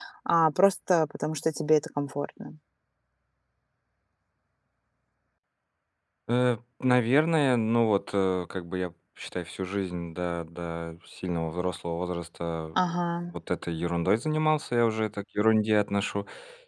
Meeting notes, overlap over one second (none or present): none